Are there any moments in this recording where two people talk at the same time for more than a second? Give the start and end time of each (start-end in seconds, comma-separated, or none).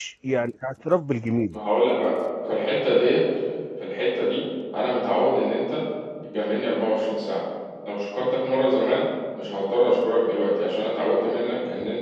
none